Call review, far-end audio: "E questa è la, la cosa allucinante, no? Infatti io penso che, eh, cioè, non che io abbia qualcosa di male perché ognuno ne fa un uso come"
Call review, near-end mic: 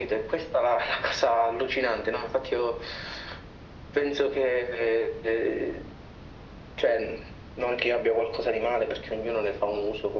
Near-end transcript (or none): none